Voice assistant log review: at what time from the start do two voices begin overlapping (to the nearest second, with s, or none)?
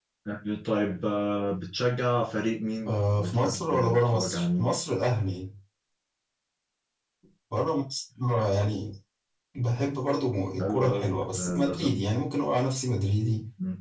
3 s